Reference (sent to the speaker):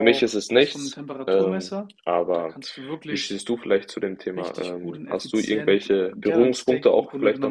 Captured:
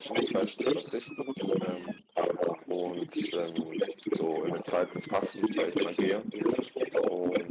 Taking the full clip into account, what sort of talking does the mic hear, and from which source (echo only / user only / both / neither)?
both